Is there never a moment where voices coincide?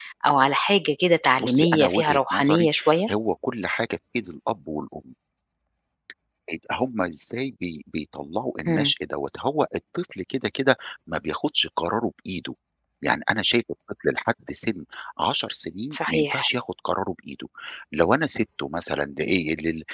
No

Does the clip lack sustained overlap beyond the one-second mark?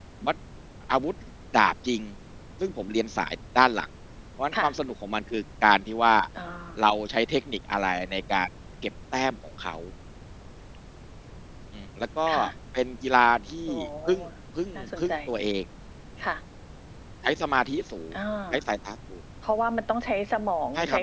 Yes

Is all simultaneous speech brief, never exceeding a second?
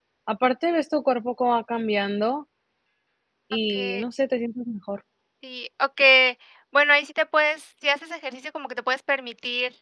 Yes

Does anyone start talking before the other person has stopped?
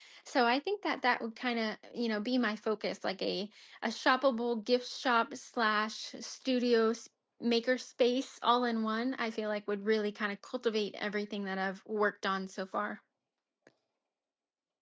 No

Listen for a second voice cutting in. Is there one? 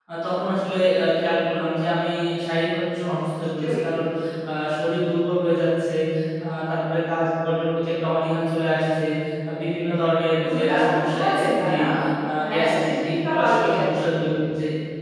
Yes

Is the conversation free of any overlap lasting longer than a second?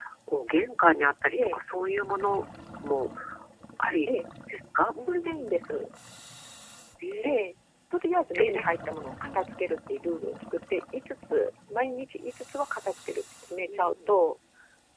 Yes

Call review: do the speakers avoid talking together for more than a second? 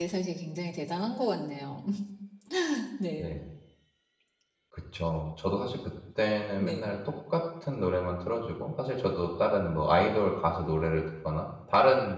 Yes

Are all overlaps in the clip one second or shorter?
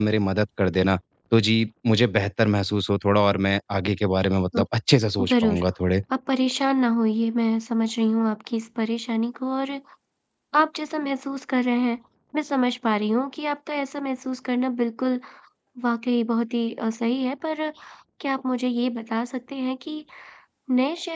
Yes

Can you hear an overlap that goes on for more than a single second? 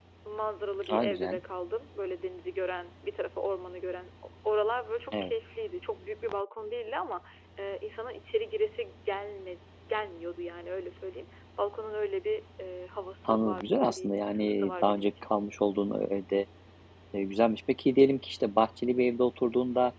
Yes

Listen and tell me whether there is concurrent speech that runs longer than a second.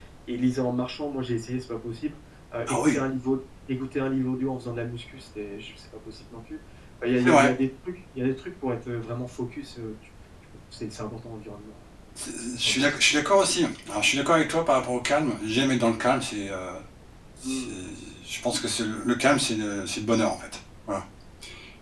No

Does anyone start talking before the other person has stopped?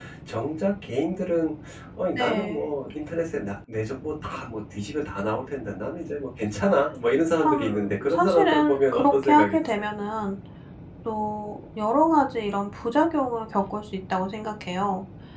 Yes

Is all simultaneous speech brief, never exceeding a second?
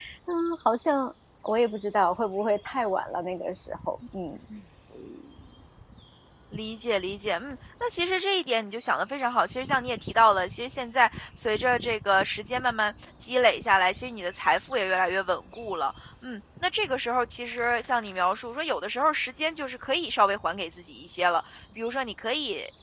Yes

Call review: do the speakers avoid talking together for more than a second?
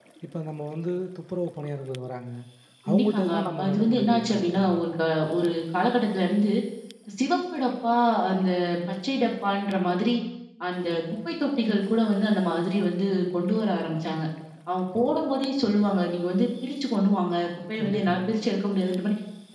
No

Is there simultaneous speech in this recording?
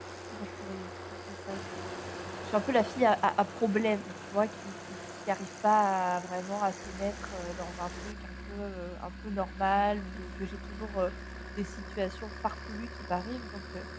No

